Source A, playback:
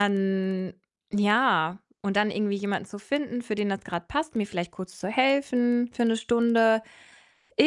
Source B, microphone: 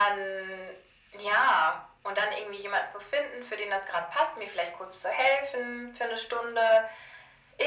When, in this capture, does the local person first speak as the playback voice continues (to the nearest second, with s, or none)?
none